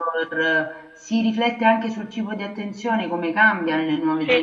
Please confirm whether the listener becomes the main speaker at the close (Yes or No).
Yes